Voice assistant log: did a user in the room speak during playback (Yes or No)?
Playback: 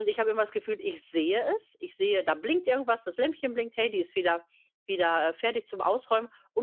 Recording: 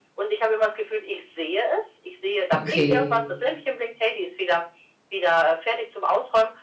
Yes